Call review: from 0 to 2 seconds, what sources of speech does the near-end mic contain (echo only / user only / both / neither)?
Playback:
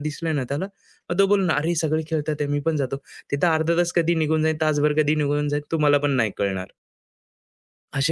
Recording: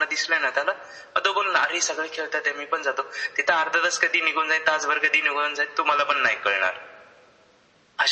echo only